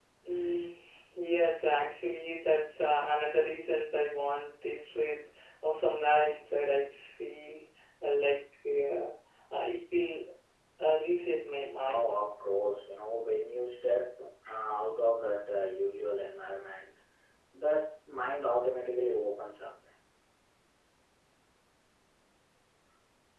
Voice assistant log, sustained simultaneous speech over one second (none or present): none